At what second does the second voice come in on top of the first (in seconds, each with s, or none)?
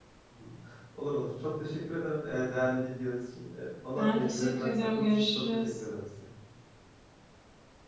4.0 s